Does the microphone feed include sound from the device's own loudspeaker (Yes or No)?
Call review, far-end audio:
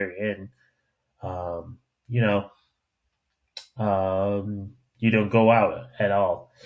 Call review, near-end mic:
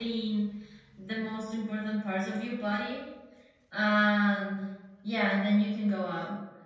No